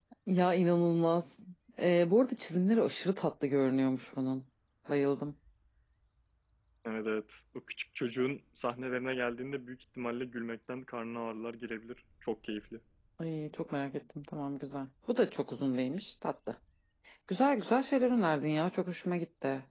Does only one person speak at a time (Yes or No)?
Yes